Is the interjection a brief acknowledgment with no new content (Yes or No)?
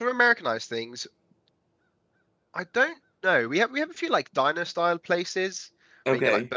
Yes